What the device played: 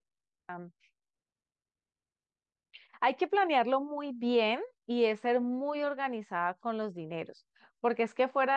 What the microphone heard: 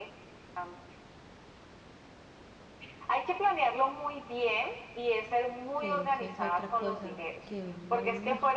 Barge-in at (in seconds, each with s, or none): 5.8 s